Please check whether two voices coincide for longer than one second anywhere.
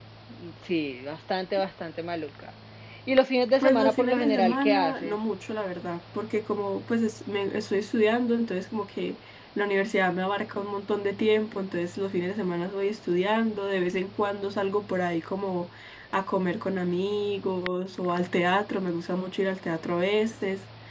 Yes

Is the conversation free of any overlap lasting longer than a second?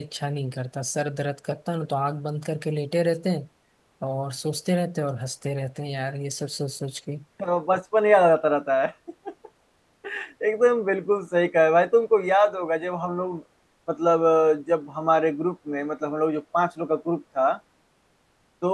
Yes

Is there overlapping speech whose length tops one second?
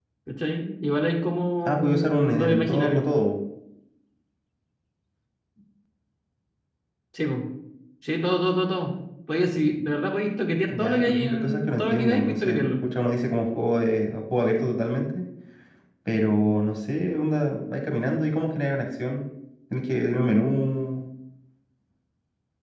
Yes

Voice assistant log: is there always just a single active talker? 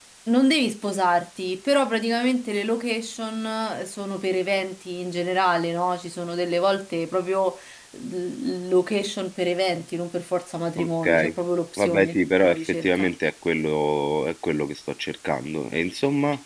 No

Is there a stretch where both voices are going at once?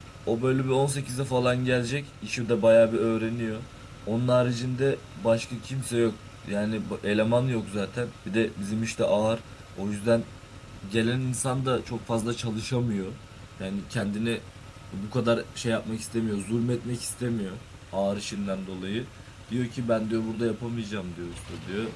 No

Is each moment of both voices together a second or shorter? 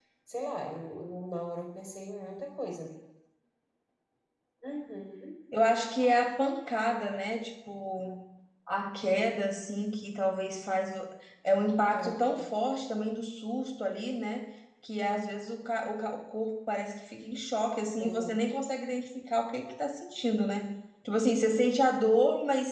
Yes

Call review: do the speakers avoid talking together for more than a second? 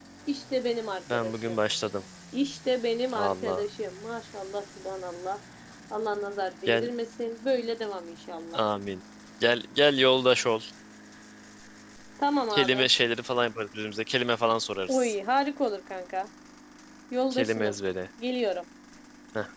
Yes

